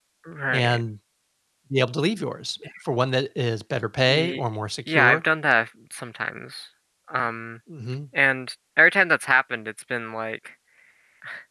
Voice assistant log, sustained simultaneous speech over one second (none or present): none